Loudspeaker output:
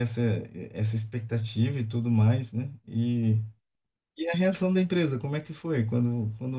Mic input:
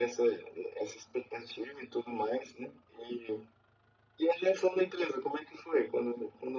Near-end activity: none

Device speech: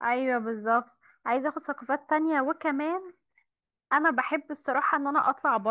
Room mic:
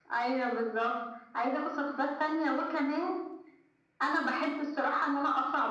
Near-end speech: none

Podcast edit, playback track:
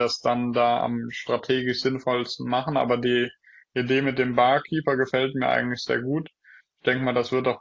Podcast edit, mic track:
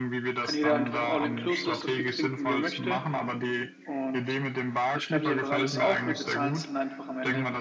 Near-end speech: present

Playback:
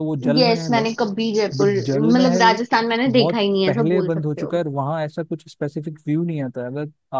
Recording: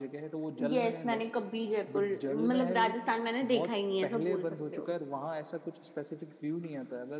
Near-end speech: none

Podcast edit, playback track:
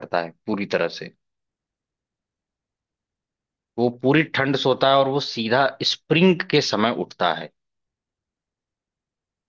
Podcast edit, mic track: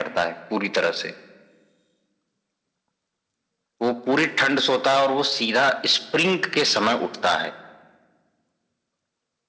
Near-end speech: none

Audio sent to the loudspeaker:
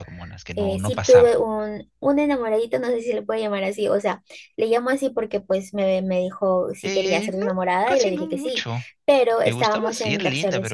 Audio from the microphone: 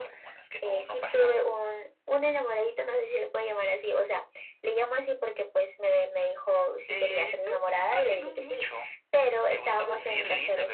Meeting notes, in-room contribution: none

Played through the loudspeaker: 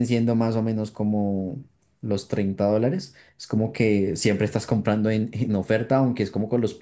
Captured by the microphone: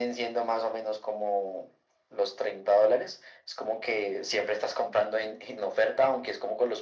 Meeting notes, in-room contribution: none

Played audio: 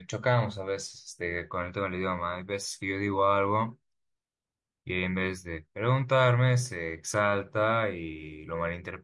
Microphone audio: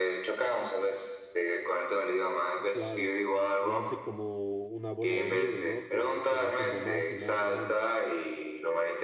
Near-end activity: present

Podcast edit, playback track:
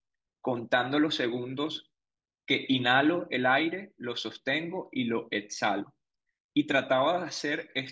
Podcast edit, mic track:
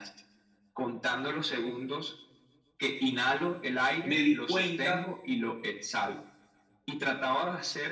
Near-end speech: present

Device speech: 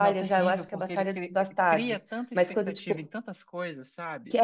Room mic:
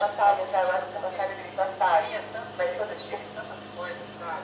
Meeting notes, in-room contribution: none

